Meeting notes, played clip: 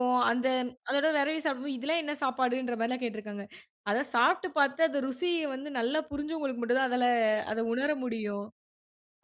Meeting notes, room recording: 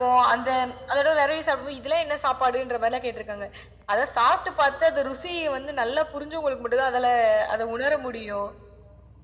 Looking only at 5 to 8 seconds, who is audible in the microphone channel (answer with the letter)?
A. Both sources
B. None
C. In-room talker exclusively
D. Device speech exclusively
D